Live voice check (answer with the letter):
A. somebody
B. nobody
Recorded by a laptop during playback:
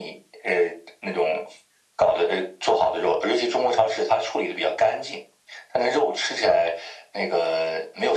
B